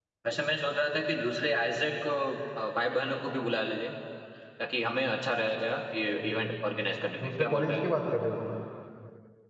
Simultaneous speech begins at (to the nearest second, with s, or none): 6 s